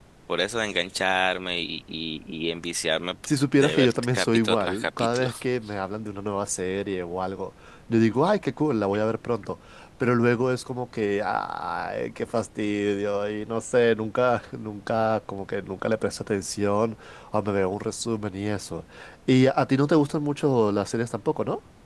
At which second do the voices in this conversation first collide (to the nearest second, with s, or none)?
4 s